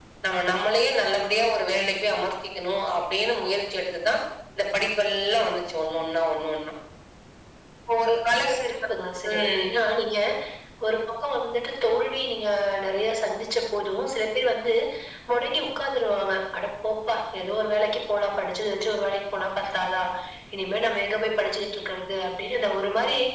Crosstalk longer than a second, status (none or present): none